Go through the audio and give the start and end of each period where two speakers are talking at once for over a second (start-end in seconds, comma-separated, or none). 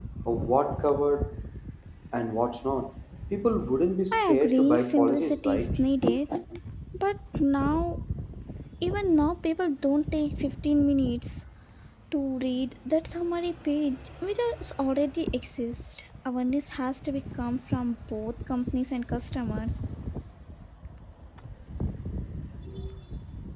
4.1-5.8